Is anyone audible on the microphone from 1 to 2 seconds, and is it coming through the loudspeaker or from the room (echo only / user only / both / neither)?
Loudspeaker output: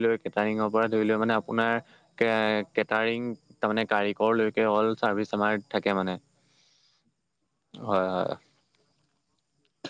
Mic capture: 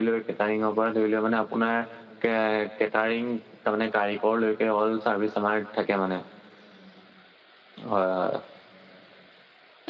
echo only